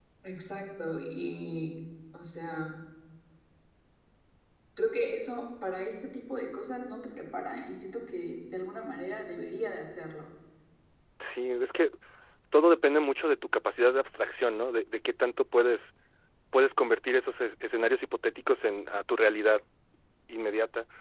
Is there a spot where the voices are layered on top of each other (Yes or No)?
No